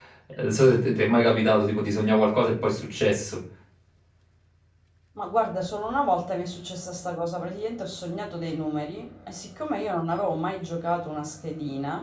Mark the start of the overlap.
none

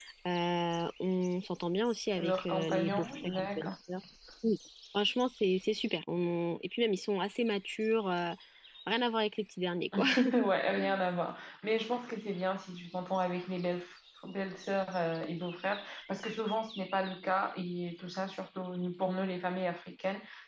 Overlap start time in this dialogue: 2.2 s

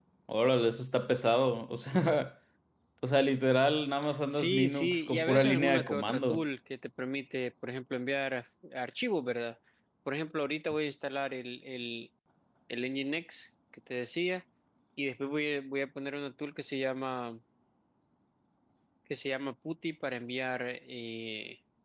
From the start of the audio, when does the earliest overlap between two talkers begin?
4.3 s

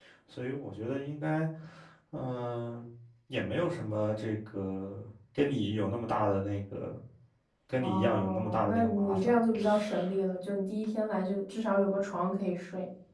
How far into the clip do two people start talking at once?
7.8 s

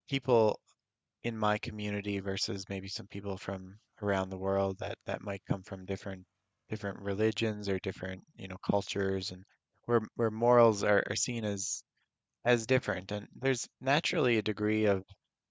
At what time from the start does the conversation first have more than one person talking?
none

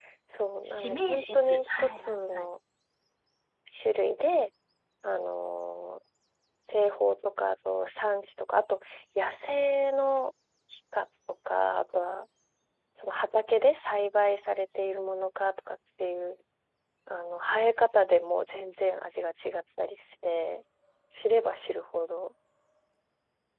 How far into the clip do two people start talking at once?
0.7 s

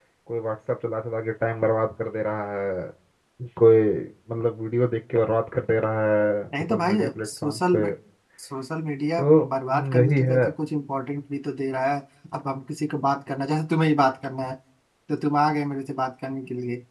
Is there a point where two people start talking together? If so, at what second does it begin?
6.6 s

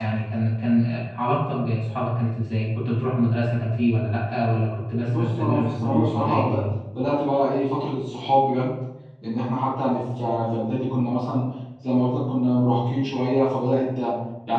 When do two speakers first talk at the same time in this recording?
5.0 s

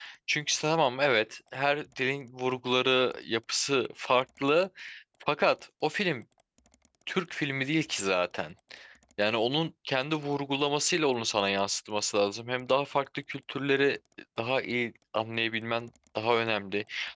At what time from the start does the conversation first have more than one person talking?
none

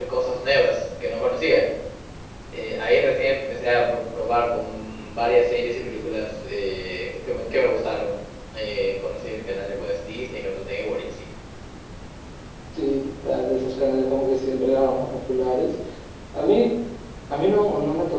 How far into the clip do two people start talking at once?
none

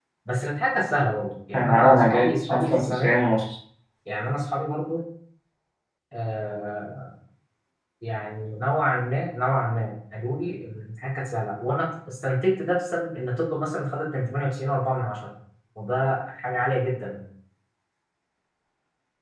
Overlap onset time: 1.5 s

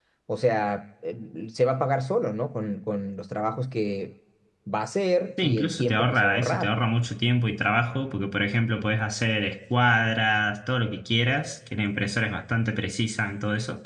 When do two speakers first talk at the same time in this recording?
5.4 s

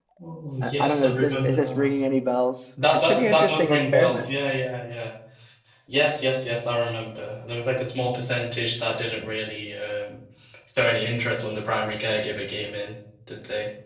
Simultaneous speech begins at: 0.6 s

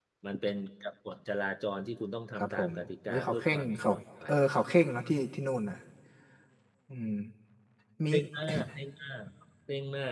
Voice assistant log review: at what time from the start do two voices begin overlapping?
2.3 s

